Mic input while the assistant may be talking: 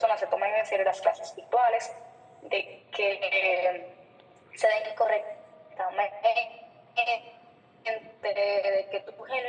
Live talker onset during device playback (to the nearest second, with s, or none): none